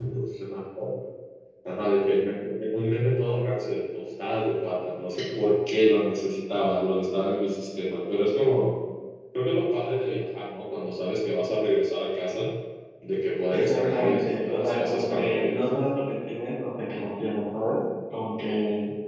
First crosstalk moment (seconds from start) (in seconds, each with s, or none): 13.5 s